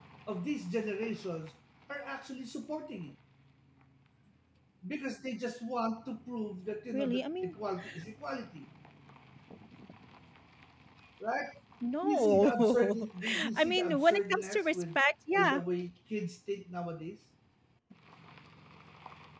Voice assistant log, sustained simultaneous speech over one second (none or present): present